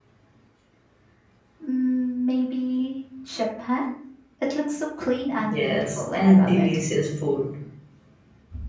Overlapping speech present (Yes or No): Yes